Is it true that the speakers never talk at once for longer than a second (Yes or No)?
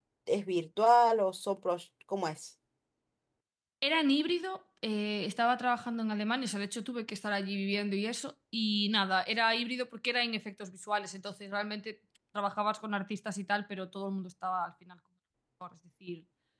Yes